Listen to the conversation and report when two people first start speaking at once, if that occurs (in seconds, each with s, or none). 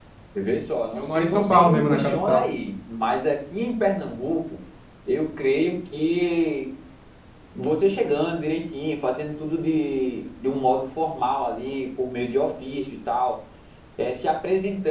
1.0 s